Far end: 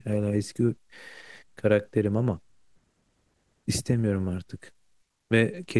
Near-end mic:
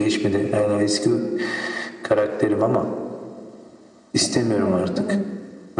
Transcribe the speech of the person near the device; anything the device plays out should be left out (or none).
Evet evet.